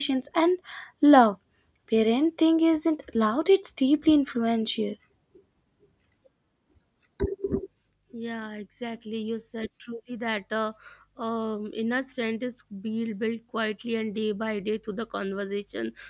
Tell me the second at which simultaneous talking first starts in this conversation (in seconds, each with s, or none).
none